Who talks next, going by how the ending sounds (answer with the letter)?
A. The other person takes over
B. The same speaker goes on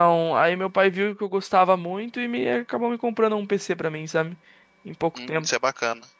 A